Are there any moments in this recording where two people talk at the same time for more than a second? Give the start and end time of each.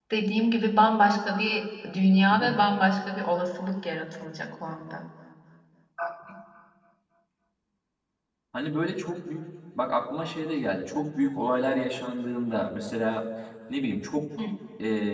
none

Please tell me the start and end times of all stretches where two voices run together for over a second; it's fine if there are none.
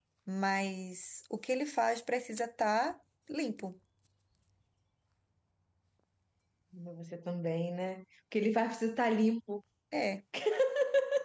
none

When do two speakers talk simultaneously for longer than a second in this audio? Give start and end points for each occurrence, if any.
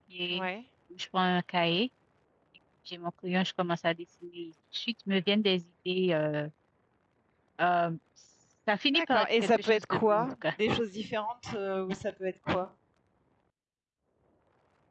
8.9-10.3

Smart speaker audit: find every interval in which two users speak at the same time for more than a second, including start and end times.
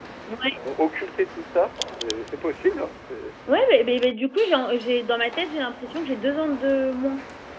none

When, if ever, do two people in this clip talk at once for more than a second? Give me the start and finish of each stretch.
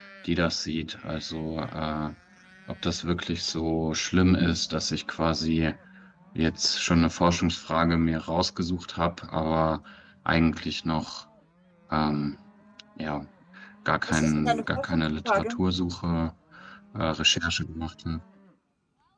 14.1-15.6

